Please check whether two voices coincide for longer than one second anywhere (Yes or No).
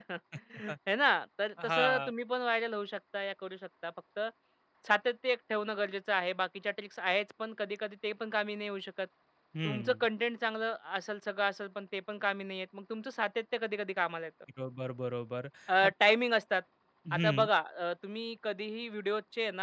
No